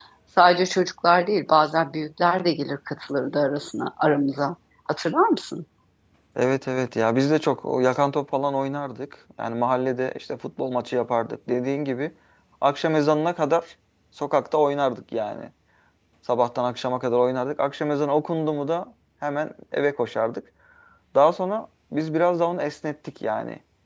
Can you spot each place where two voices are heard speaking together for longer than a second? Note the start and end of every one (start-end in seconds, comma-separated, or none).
none